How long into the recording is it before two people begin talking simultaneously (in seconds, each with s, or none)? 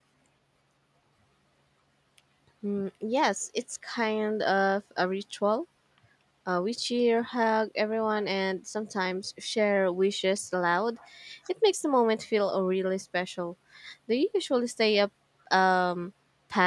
none